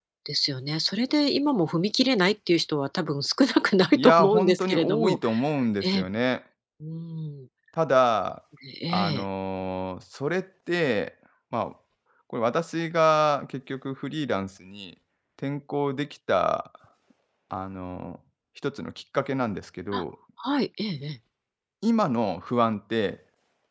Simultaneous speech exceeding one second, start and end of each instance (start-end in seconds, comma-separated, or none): 3.9-5.2